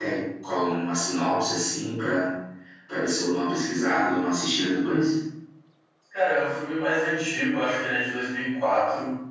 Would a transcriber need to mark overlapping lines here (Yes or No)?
No